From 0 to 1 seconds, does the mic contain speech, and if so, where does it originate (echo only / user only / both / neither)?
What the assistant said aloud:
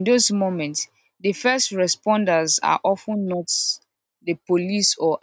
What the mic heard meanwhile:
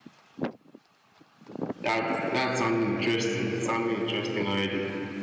neither